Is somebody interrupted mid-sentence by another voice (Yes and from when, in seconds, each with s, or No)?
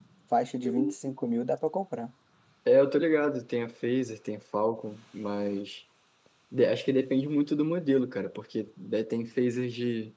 No